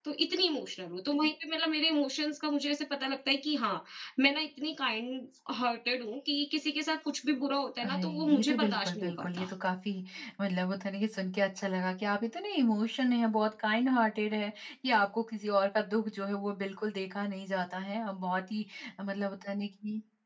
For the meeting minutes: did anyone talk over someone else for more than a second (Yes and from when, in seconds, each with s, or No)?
Yes, from 7.8 s